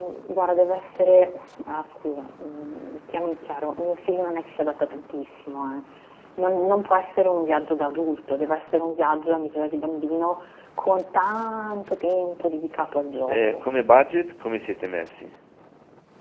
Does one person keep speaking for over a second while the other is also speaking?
No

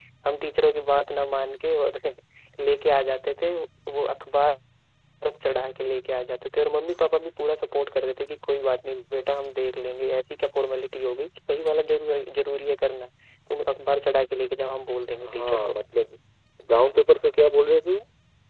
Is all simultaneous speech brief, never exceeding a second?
Yes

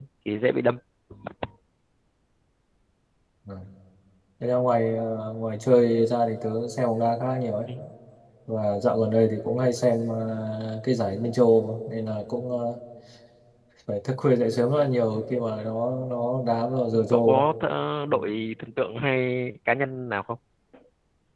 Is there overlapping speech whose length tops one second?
No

